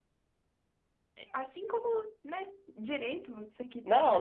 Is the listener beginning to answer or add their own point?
Yes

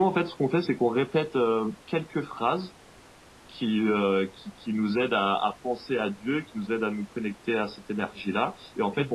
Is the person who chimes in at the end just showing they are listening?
Yes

